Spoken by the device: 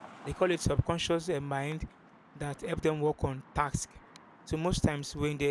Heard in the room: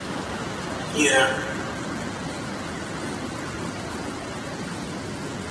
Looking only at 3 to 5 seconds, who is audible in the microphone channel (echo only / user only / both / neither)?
neither